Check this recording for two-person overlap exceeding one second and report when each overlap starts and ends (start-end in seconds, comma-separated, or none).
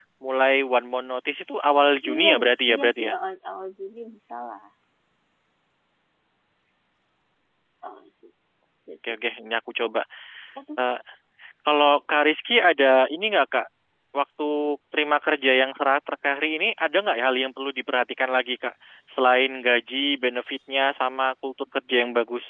none